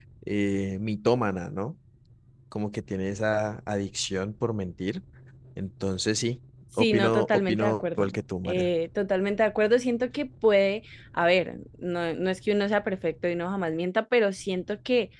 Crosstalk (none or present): present